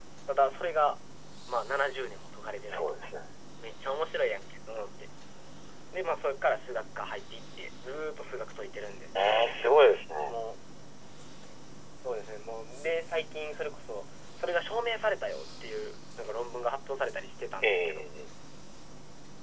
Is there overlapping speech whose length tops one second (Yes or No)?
No